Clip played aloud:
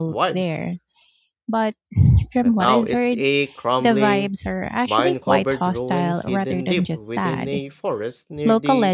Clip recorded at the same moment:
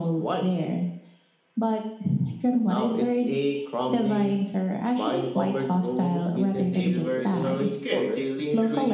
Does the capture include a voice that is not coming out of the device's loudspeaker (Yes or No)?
Yes